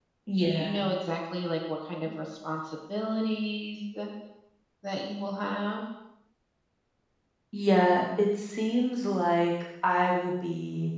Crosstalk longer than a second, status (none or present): none